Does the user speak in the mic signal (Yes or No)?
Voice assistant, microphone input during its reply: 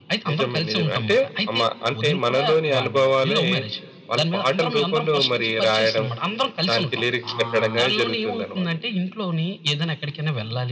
Yes